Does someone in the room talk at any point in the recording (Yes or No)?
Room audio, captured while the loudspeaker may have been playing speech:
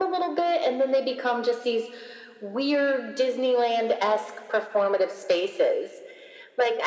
No